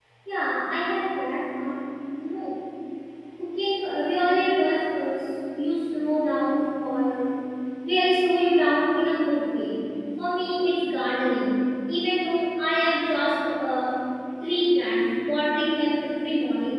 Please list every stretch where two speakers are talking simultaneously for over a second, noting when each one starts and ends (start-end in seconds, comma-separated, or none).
none